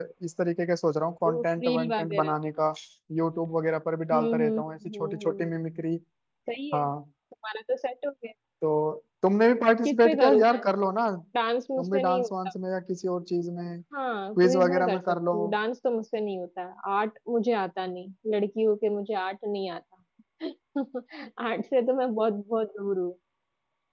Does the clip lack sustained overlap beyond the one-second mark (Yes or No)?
No